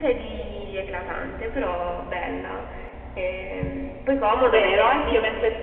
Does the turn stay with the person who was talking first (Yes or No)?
No